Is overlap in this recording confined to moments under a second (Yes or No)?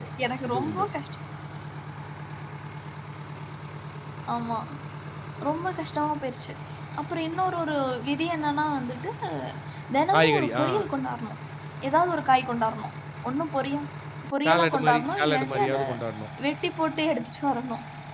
No